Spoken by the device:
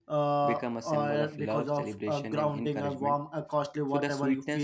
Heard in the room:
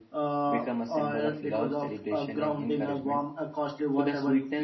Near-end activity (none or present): none